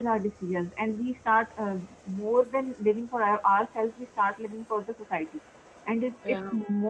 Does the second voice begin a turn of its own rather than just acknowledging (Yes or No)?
No